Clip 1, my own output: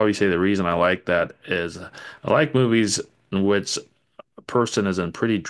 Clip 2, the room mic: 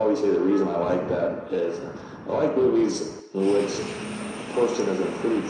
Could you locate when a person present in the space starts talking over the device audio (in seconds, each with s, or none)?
none